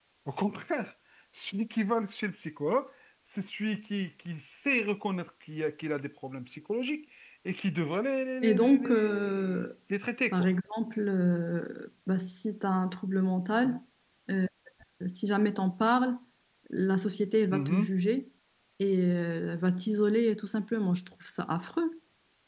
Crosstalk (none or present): present